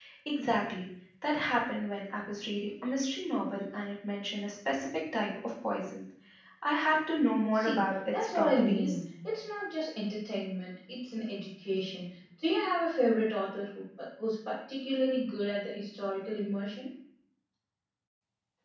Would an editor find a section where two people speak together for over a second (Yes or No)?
Yes